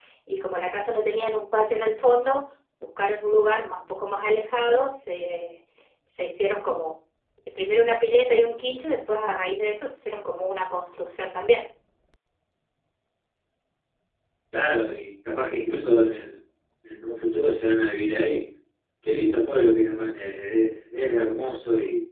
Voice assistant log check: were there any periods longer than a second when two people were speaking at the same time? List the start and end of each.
none

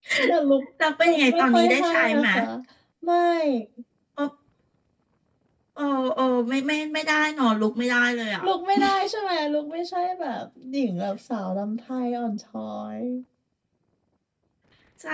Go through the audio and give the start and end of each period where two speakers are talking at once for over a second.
1.1-2.2

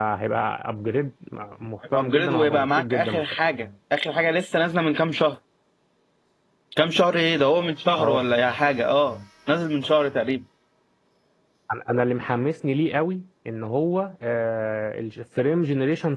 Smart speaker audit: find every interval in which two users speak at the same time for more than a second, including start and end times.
1.9-3.2

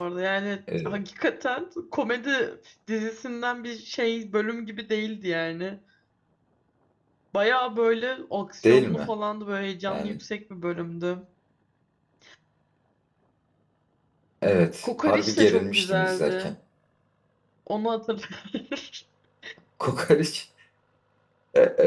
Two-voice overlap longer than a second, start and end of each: 14.8-16.5

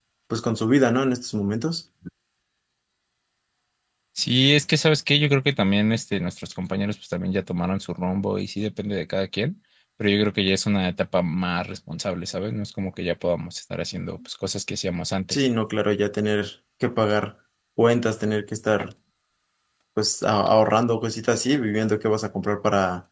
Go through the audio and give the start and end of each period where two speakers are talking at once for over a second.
none

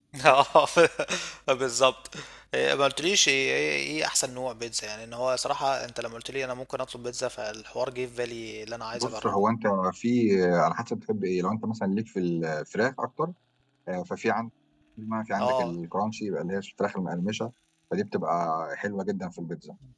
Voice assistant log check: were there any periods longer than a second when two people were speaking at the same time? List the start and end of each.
none

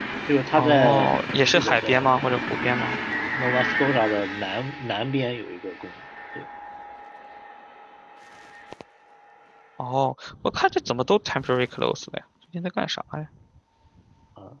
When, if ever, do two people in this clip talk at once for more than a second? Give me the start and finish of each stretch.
0.6-2.1

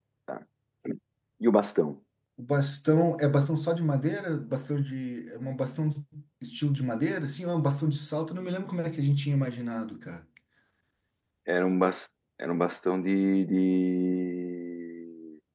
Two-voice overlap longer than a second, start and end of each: none

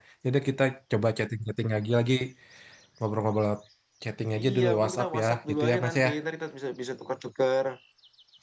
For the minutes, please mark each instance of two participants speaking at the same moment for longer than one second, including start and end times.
4.4-6.1

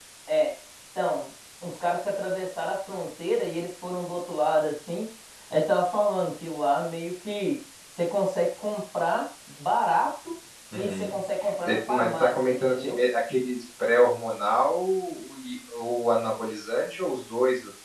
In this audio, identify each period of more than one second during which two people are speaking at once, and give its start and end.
11.7-13.0

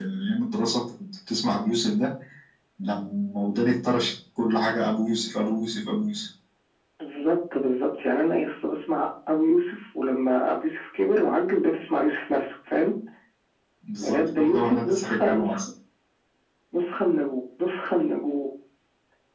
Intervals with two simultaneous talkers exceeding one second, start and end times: 14.0-15.7

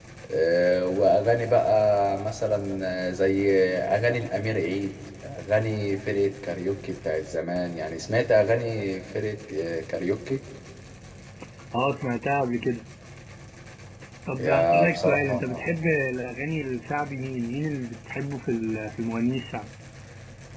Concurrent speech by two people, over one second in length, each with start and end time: 14.4-15.7

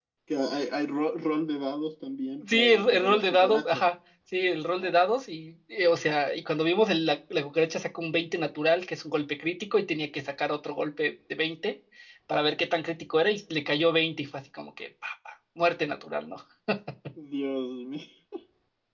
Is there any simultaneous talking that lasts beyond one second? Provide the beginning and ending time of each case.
2.5-3.8

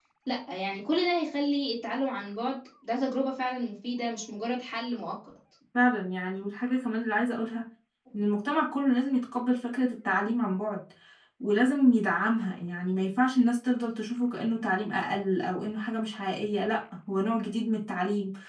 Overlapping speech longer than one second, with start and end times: none

